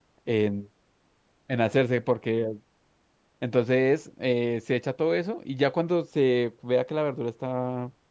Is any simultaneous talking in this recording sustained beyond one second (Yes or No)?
No